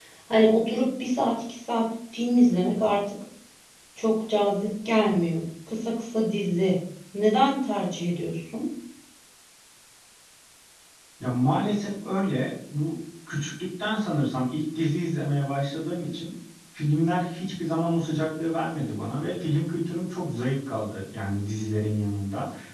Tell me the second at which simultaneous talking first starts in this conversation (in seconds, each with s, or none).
none